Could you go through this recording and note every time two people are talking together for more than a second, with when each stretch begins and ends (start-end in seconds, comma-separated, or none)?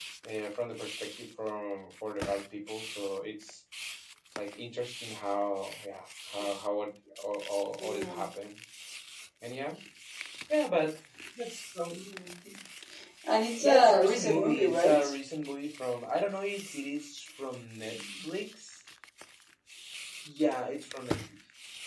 13.6-15.0